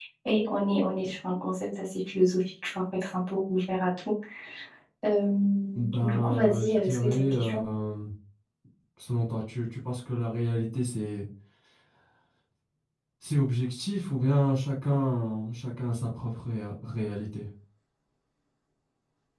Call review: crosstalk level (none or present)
present